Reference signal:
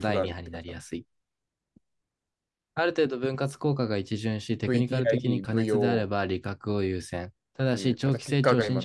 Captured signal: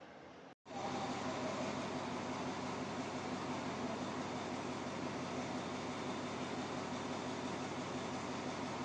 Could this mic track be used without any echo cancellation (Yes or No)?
Yes